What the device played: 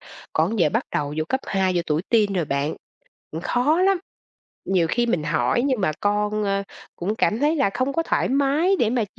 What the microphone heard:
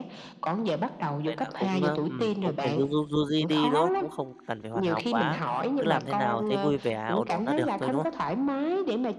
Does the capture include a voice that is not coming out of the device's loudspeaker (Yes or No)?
Yes